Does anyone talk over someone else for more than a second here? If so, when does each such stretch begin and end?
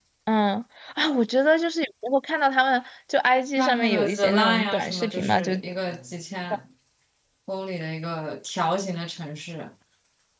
3.6-5.5

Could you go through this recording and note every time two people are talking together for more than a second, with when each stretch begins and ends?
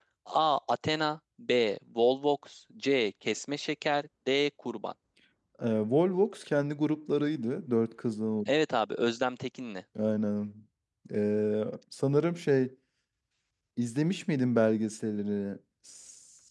none

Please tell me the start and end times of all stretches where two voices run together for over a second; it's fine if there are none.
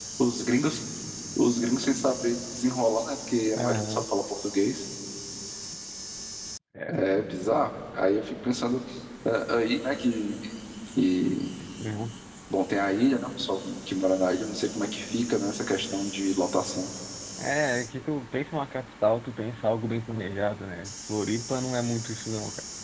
none

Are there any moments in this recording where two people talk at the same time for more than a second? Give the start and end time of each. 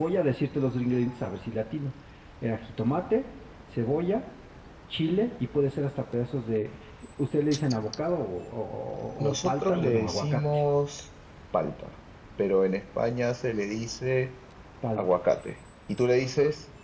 9.2-10.6

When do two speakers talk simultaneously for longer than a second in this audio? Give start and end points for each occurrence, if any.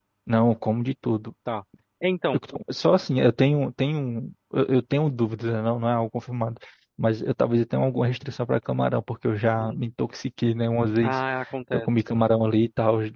none

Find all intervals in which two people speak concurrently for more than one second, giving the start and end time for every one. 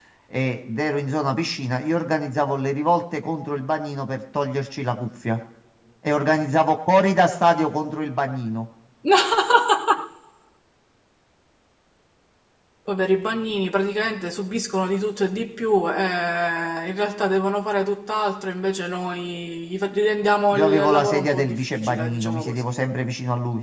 20.6-22.6

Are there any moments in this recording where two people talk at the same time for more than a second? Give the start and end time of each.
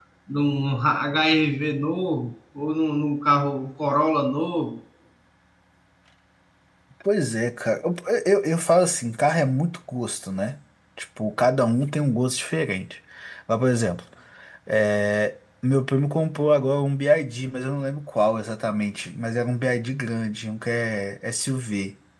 none

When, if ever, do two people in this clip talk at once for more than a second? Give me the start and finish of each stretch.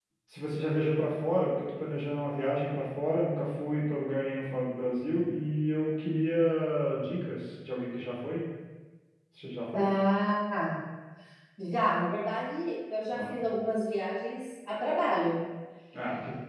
none

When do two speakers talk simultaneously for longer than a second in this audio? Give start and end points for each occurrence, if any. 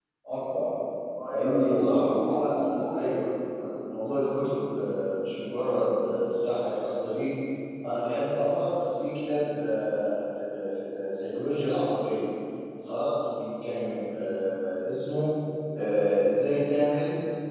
1.3-2.9

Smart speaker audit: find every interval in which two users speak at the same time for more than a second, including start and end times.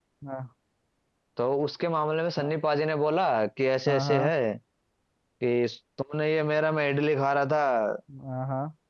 none

